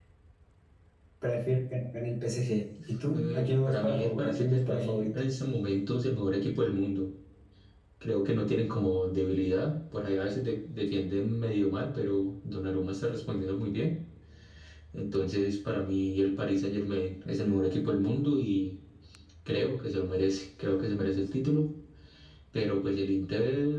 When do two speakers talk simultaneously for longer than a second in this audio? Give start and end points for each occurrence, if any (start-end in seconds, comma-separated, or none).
3.1-5.1